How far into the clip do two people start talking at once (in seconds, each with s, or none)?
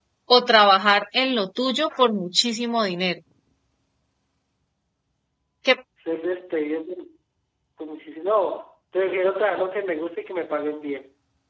none